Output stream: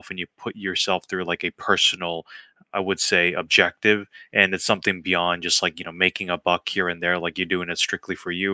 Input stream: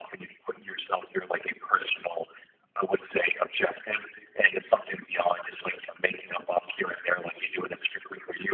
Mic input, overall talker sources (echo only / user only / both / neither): echo only